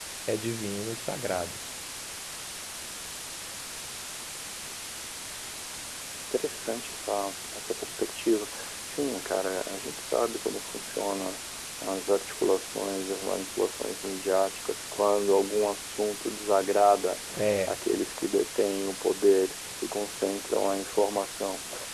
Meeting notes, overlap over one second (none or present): none